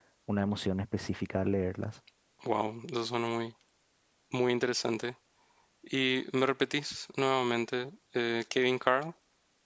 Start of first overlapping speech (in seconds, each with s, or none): none